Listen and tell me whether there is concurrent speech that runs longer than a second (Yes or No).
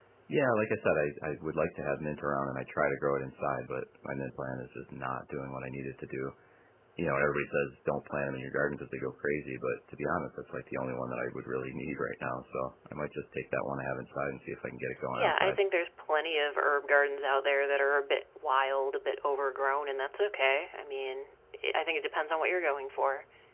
No